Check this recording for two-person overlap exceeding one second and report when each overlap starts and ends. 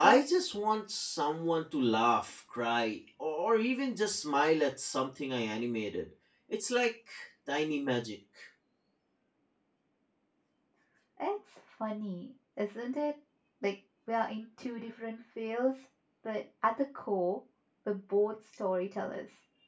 none

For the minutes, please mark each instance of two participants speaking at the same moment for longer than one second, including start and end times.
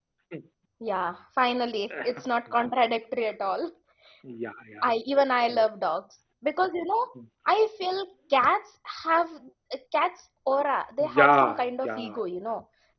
11.0-12.2

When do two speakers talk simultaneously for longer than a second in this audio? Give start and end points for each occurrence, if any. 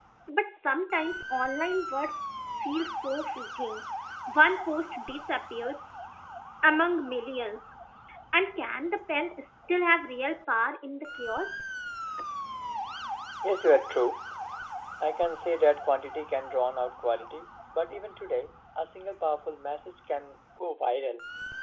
none

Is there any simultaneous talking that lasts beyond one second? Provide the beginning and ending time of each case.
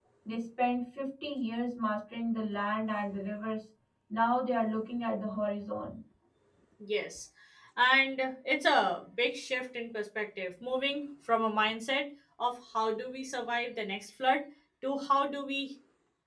none

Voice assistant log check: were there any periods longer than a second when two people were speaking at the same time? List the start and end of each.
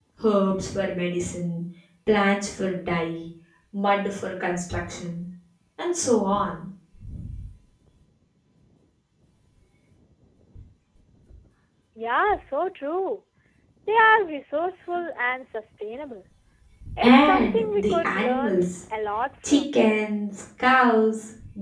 17.0-18.6

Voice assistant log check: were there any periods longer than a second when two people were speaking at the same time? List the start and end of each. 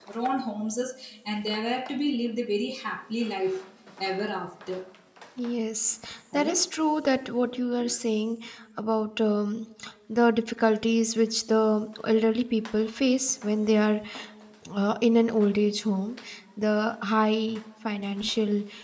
none

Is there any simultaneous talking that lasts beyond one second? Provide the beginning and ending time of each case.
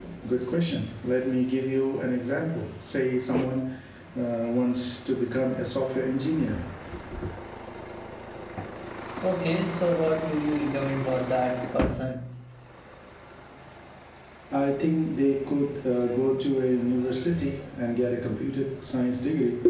none

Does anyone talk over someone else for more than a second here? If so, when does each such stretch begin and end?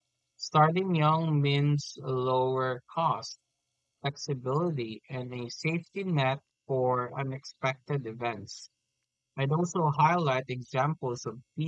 none

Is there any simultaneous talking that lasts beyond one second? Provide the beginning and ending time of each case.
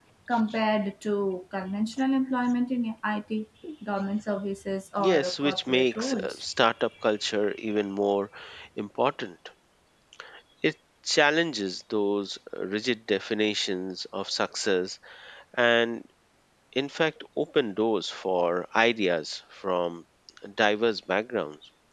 5.0-6.4

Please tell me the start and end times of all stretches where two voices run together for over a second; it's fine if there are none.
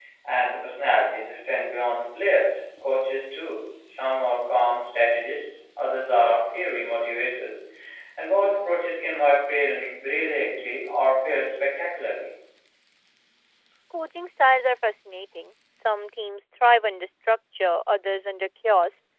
none

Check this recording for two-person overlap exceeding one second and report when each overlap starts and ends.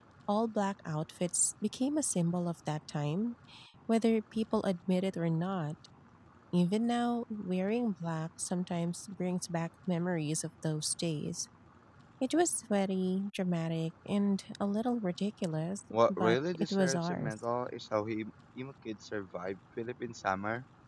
16.1-17.4

